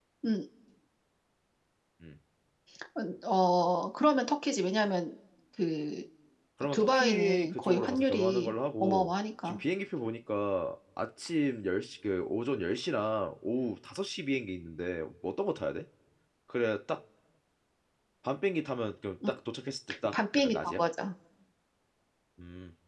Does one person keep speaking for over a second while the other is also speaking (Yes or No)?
Yes